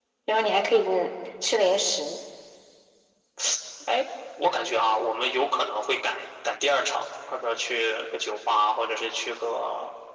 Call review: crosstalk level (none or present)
none